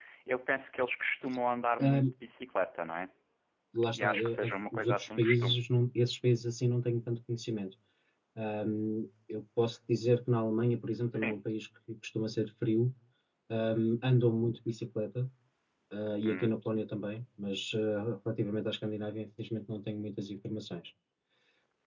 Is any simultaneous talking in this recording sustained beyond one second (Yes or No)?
Yes